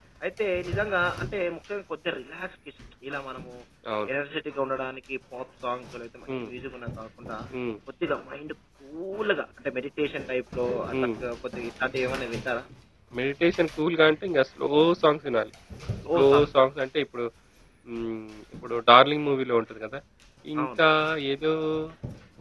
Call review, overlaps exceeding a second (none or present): none